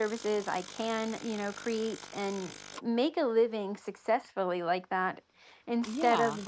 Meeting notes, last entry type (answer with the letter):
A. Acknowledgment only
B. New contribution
A